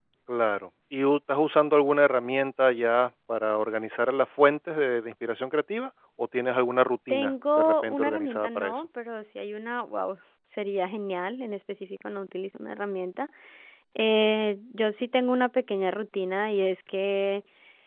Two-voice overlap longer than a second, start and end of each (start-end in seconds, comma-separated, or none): 7.1-8.8